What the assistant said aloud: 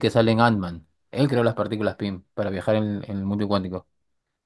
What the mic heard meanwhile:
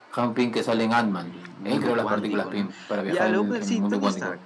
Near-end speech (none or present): present